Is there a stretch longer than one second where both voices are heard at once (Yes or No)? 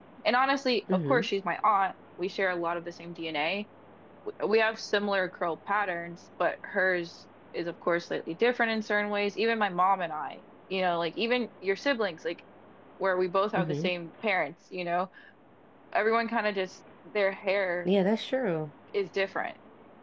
No